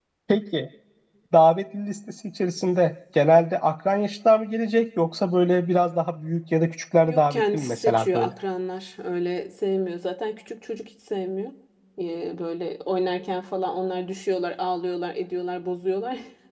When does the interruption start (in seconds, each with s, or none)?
7.1 s